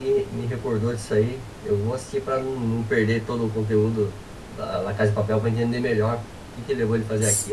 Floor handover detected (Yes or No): Yes